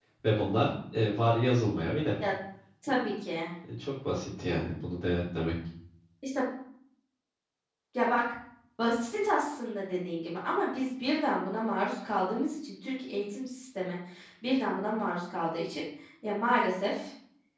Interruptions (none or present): none